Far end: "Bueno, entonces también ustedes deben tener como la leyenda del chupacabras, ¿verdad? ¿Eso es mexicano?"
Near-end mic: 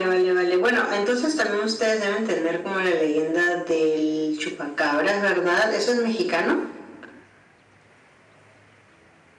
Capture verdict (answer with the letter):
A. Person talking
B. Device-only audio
B